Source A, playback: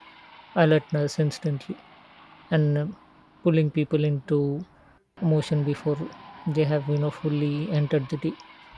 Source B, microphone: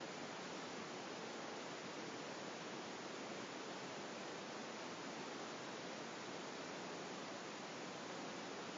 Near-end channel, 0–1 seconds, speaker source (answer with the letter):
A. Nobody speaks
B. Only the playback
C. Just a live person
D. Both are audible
A